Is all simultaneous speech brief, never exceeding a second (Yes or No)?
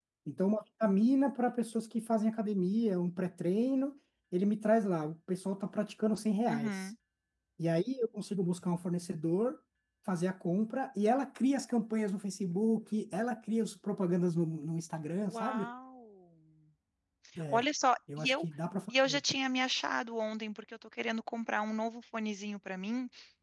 Yes